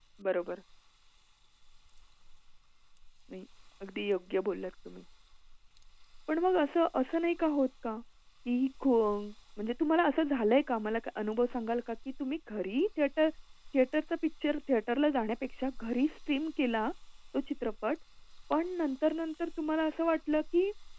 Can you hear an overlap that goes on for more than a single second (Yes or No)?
No